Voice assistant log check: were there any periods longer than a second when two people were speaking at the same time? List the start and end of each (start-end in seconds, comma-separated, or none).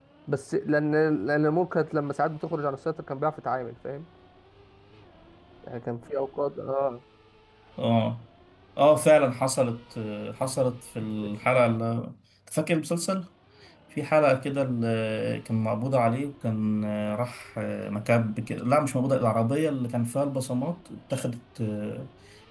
none